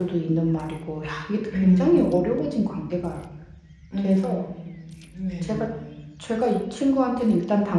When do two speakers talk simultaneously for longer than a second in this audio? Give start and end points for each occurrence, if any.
1.5-2.8

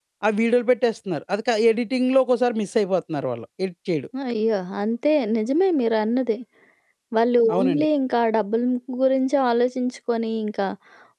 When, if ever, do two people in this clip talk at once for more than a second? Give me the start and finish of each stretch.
none

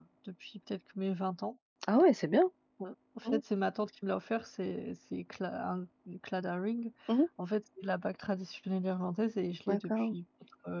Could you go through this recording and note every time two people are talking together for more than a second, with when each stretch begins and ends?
none

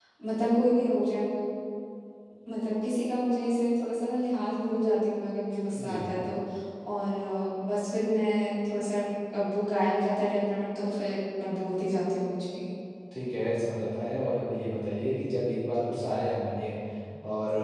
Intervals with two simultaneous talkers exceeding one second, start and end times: none

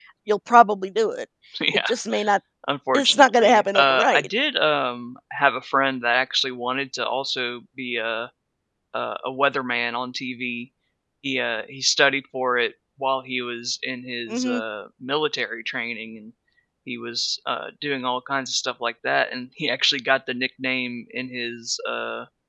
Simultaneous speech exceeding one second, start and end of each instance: 2.9-4.3

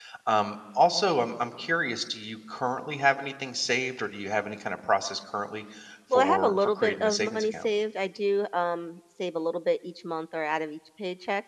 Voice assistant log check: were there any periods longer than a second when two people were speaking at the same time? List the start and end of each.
6.1-7.7

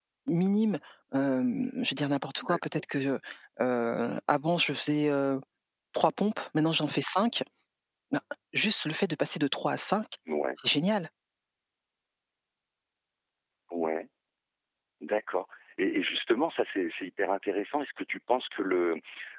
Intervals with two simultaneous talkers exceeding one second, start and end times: none

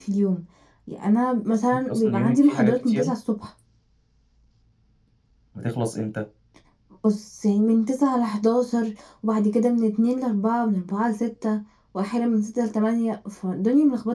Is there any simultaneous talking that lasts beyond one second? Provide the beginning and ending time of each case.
1.9-3.1

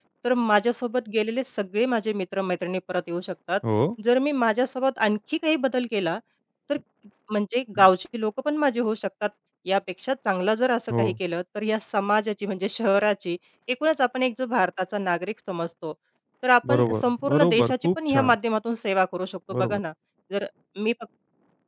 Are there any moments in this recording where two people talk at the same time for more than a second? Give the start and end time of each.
16.7-18.3

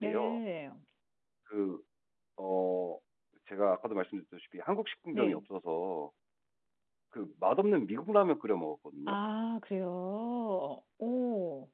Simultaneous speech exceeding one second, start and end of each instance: none

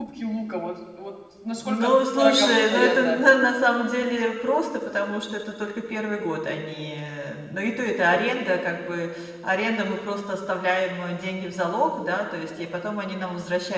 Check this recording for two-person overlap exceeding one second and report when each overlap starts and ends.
1.6-3.2

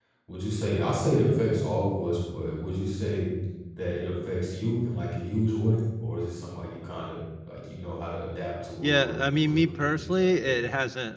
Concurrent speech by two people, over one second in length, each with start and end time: 8.8-10.5

